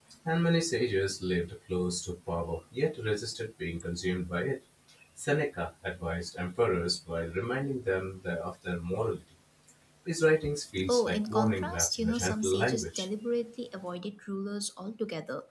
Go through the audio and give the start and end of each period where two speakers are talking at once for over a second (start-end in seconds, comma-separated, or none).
10.9-13.1